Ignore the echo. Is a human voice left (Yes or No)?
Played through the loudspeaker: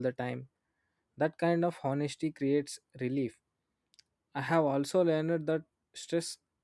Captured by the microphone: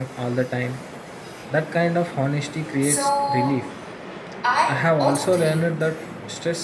Yes